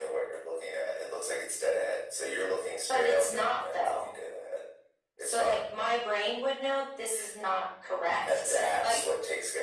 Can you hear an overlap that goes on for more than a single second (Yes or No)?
Yes